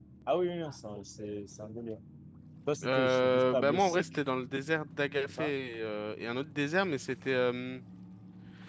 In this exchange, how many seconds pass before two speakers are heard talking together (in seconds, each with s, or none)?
2.8 s